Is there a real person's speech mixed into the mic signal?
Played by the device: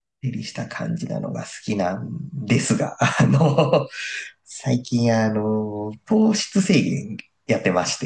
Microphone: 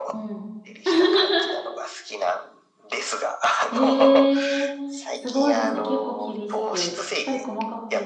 Yes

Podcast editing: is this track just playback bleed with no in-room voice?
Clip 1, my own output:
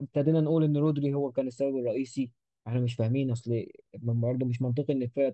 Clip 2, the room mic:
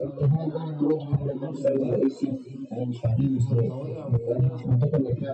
No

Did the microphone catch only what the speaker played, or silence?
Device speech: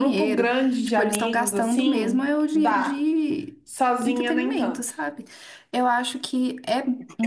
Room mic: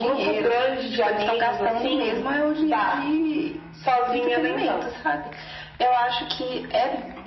Yes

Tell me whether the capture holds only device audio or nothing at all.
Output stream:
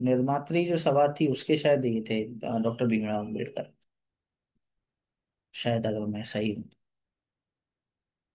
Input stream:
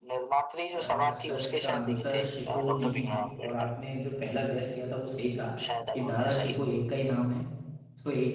No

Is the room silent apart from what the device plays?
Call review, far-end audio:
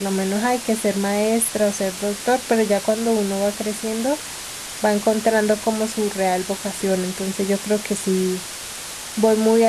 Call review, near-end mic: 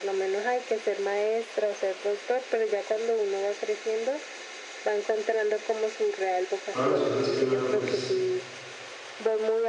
No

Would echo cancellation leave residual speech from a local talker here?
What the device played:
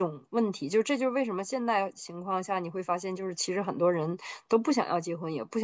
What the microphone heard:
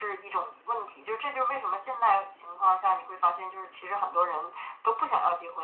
No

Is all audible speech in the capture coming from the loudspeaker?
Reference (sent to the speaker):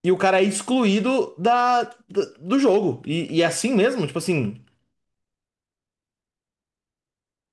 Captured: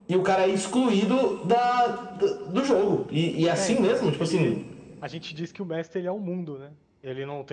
No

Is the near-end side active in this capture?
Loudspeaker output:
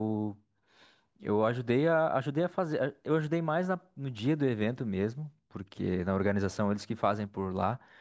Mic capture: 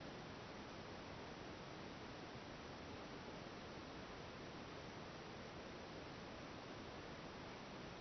No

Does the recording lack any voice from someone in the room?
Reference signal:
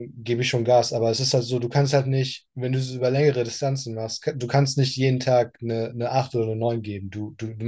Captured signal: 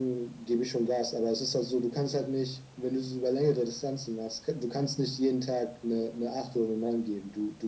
Yes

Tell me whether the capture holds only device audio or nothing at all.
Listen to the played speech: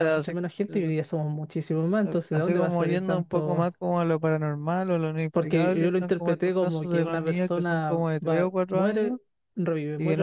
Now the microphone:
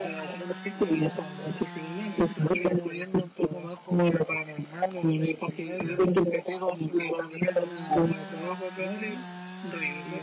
Yes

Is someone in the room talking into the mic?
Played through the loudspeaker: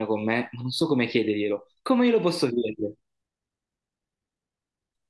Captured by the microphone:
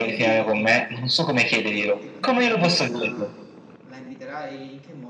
Yes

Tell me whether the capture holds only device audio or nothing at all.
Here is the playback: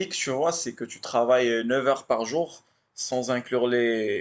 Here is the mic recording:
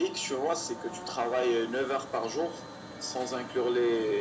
Yes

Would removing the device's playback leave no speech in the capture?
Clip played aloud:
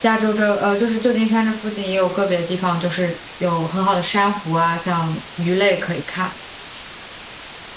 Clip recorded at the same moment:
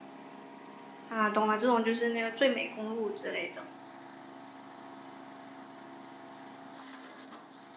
No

